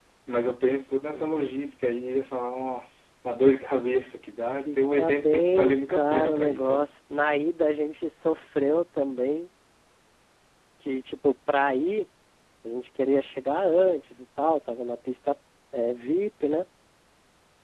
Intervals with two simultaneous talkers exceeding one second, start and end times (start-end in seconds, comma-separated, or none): 4.7-6.9